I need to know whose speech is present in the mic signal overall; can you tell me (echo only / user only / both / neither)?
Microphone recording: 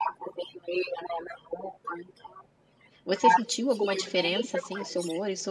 both